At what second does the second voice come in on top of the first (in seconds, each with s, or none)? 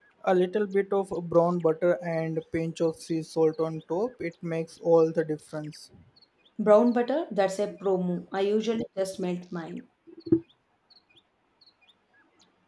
none